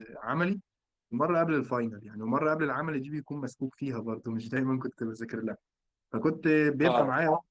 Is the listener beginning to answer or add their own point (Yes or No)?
No